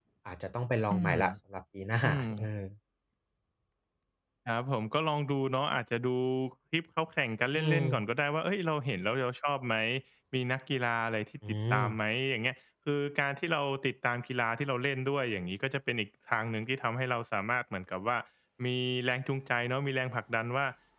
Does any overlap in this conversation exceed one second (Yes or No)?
No